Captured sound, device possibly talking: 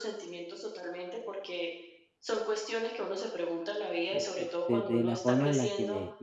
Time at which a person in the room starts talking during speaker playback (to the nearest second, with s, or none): 4 s